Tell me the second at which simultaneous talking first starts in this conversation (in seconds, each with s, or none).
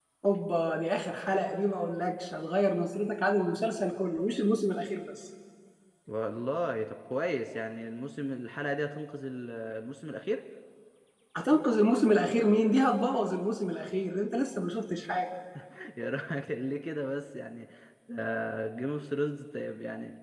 none